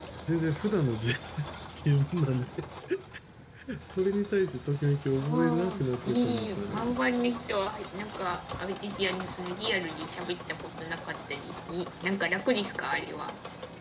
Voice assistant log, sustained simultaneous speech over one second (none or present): present